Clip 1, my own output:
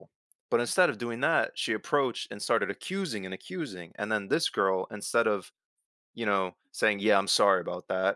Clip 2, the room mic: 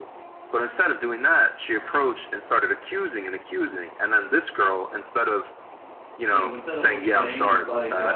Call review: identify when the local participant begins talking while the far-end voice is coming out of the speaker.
6 s

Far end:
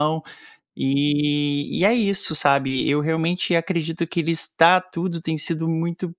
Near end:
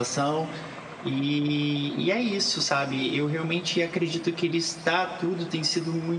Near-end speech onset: none

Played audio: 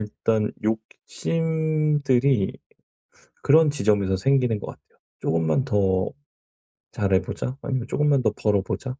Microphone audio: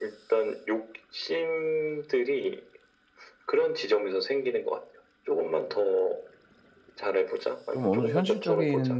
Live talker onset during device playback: 8 s

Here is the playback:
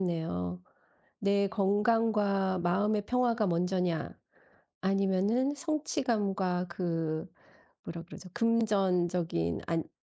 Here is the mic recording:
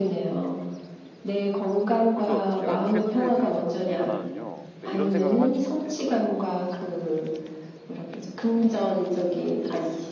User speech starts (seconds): 2 s

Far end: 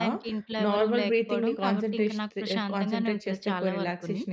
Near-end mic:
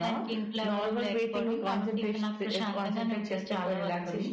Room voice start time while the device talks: none

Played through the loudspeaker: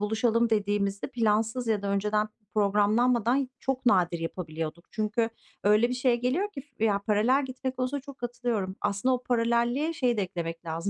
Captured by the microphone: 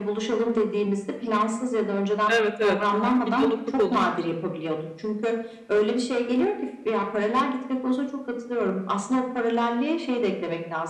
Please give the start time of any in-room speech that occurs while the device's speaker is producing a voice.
2 s

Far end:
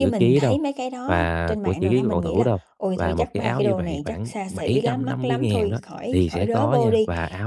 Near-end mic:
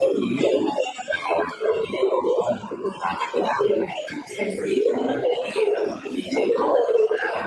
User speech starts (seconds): none

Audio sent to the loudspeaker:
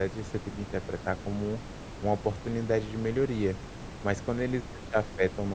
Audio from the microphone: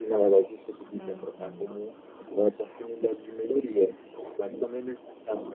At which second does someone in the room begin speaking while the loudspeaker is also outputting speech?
1 s

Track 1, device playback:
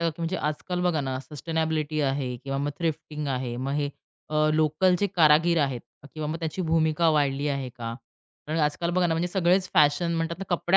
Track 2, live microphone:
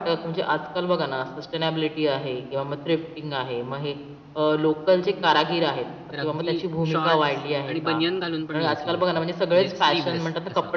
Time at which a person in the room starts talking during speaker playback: 6 s

